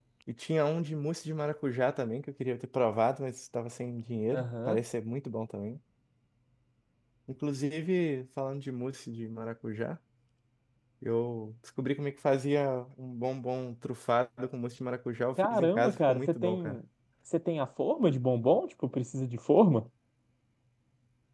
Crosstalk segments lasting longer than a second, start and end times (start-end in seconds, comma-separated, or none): 15.4-16.8